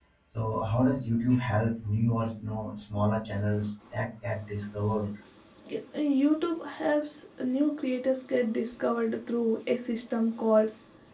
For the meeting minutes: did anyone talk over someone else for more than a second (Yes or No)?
No